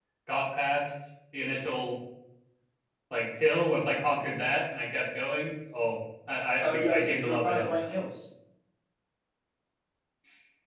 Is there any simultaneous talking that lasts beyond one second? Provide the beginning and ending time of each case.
6.6-7.8

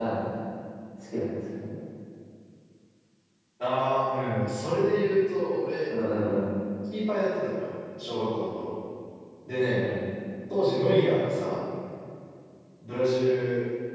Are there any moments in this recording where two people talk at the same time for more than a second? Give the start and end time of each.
none

